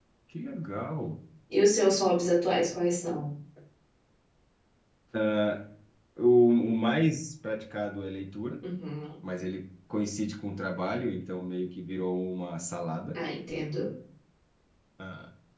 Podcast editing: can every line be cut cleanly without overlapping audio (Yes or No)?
Yes